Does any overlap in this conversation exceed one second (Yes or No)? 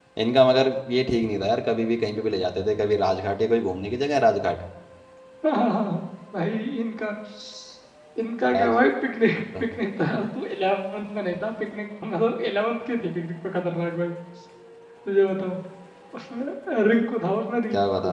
No